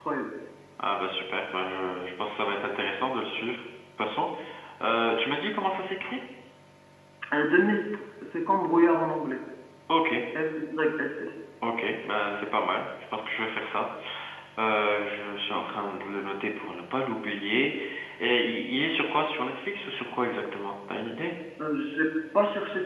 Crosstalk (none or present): none